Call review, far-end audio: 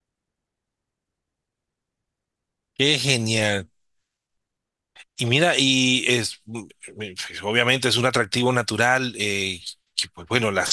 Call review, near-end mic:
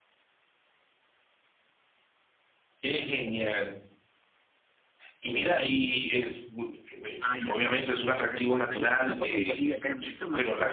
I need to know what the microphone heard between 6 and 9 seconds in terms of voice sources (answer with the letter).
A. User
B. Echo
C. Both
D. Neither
C